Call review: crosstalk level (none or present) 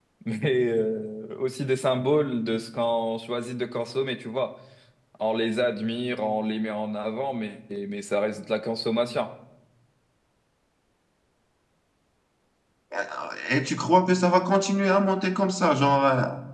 none